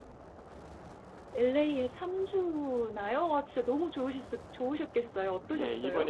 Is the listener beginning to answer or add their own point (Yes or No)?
Yes